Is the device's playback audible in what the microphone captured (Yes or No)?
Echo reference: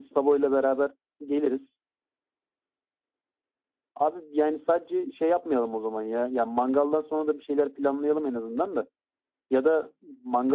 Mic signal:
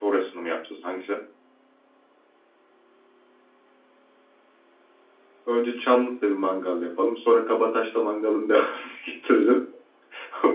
No